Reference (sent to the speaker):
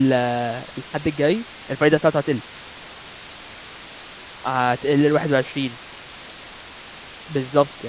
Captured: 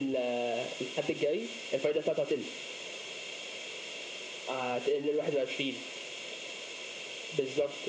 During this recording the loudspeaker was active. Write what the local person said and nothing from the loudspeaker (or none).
none